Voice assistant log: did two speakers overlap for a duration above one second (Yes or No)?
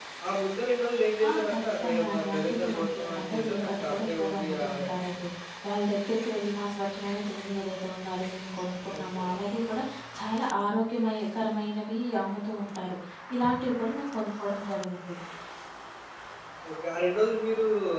Yes